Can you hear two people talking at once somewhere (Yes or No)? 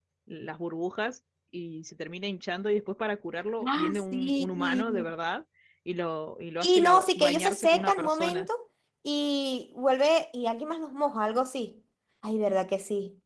Yes